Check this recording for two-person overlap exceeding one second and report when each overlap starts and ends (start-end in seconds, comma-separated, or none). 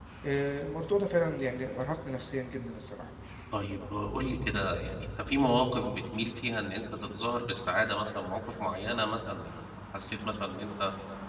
none